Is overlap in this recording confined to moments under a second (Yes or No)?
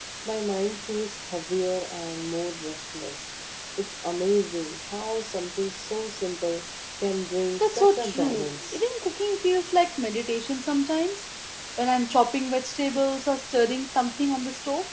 No